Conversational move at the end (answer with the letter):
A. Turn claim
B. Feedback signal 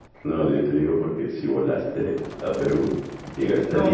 A